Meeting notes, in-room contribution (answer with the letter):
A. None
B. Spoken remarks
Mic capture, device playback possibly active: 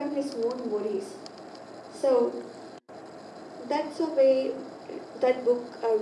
A